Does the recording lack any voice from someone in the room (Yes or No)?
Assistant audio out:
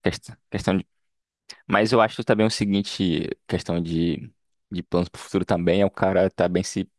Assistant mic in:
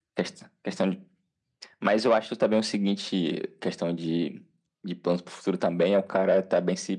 Yes